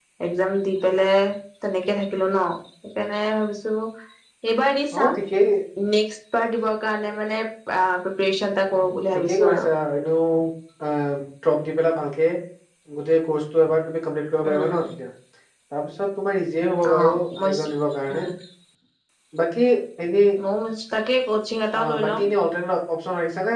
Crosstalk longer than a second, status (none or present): none